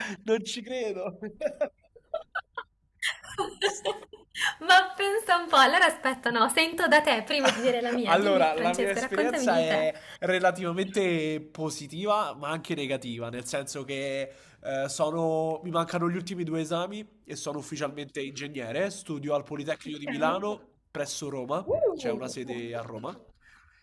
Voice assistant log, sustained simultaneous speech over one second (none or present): present